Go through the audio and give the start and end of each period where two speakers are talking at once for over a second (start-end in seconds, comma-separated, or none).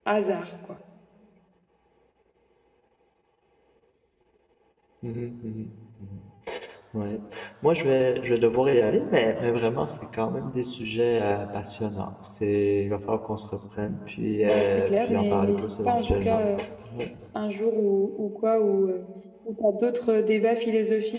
14.4-16.4